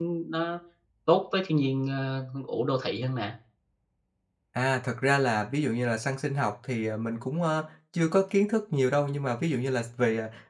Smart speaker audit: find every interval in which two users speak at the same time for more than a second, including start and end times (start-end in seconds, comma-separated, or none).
none